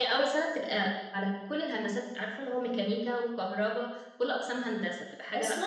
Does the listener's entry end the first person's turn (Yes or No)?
Yes